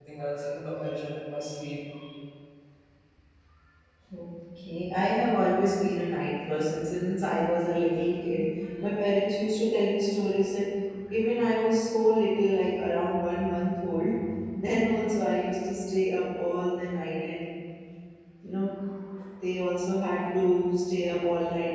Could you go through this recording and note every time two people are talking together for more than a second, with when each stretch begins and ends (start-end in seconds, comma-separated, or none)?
none